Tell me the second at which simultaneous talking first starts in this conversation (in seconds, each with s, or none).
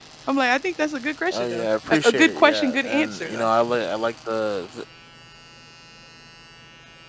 1.3 s